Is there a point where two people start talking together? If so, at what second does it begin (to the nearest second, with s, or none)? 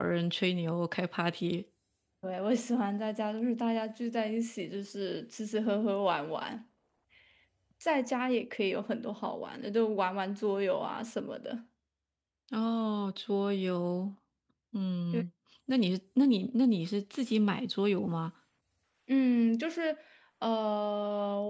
none